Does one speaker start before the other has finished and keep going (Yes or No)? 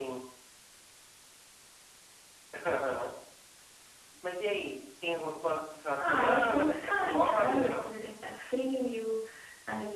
Yes